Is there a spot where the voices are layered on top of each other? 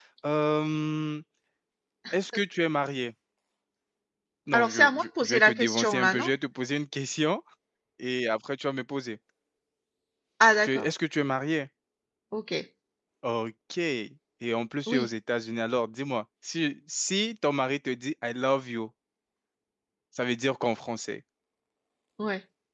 Yes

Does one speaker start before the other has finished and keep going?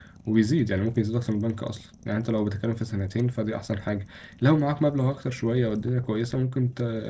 No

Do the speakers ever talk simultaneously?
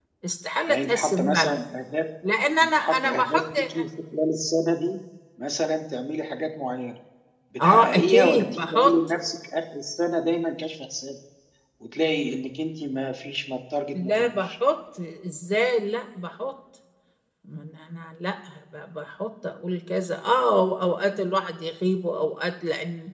Yes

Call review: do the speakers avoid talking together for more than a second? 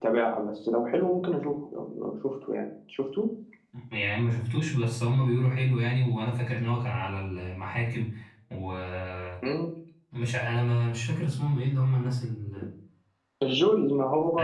Yes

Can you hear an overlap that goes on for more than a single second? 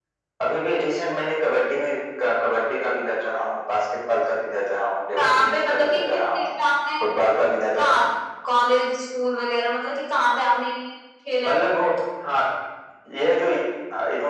Yes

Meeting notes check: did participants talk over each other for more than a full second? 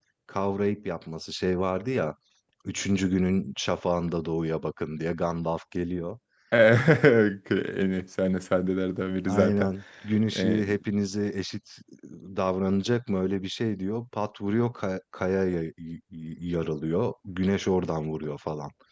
No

